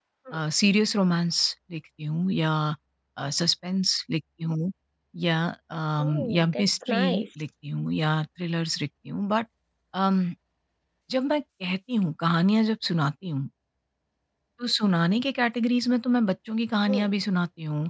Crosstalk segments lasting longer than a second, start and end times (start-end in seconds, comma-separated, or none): 6.0-7.2